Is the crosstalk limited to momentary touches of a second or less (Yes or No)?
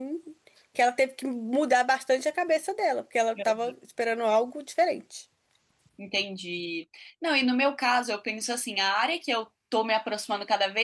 Yes